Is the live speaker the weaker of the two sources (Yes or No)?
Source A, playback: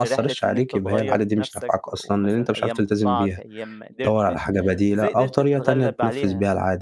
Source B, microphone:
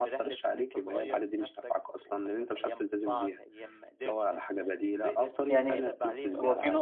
No